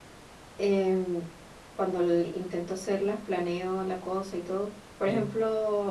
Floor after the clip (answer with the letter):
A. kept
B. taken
A